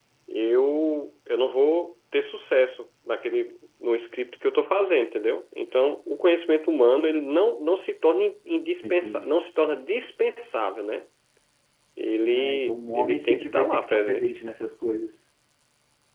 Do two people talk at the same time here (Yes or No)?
Yes